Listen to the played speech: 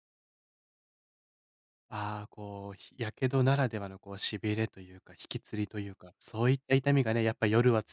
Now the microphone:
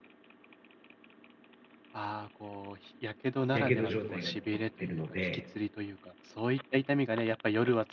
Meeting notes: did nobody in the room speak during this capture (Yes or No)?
No